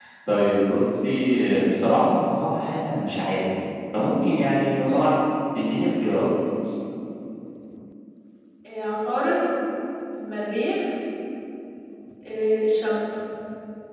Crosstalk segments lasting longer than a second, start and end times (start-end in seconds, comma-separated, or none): none